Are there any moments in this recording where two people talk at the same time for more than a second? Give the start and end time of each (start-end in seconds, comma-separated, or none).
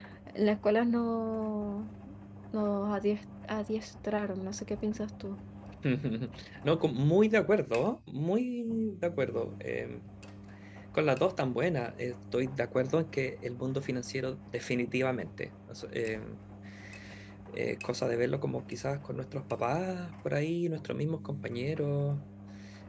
none